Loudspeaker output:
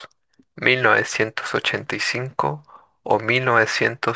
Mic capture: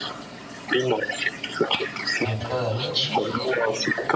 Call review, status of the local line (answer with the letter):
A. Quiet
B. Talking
B